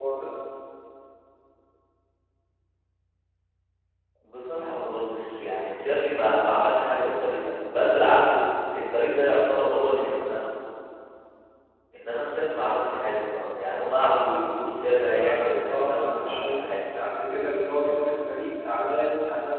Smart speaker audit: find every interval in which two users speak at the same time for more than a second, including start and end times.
15.2-16.6

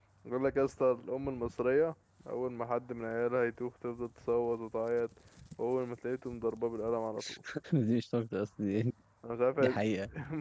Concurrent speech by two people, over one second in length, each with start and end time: none

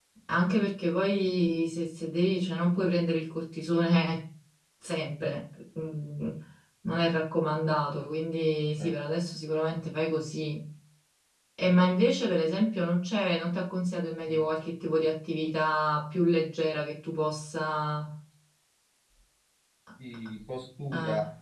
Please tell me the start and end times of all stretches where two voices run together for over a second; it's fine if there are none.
none

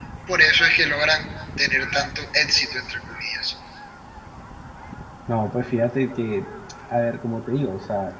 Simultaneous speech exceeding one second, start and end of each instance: none

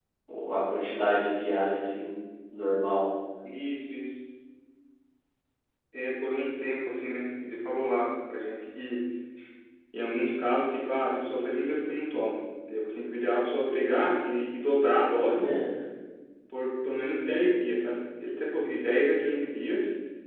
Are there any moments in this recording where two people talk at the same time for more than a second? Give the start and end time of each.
none

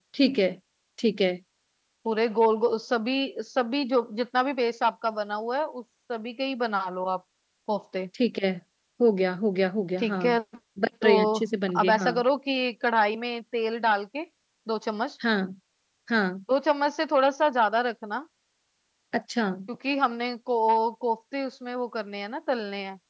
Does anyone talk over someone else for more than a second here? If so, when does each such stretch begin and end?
none

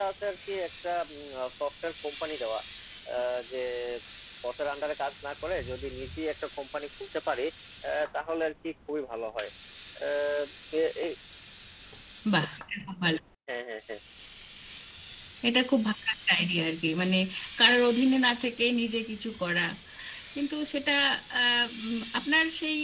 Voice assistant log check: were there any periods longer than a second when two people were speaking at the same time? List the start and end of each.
none

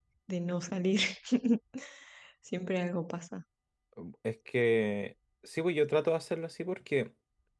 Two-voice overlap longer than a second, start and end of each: none

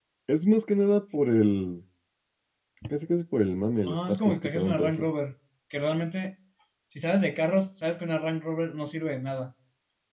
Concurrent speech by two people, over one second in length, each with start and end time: 3.9-5.1

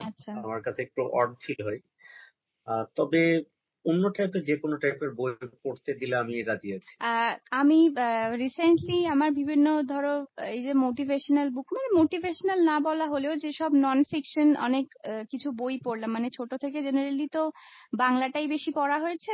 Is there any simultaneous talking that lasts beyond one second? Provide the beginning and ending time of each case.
none

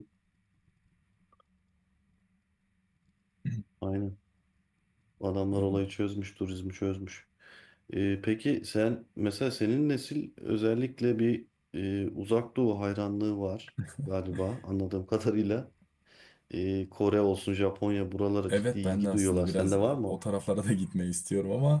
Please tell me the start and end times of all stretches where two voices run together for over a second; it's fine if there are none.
18.5-20.2

